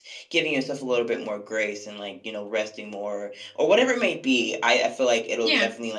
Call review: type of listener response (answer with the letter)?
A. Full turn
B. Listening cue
B